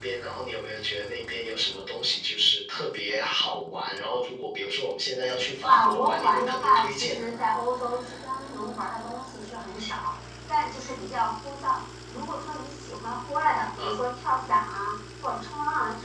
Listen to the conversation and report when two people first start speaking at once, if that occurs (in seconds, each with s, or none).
5.7 s